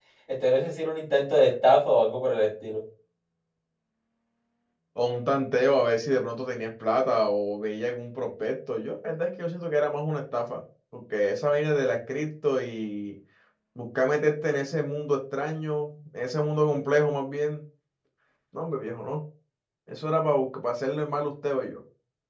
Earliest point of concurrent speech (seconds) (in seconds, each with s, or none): none